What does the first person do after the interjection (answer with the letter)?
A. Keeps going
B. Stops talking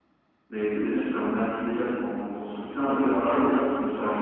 A